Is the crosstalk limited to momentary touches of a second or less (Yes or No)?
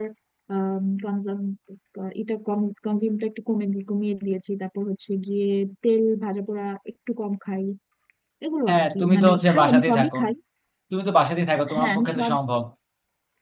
No